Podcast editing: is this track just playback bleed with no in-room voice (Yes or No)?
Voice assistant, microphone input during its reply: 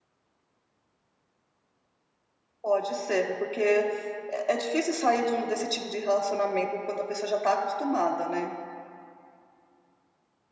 No